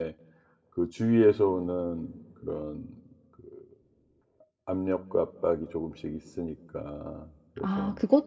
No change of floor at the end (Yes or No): No